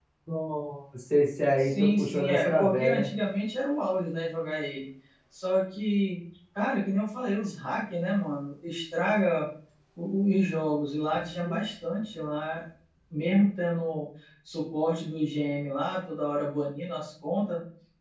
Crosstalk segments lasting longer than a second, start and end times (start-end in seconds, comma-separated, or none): 1.6-3.1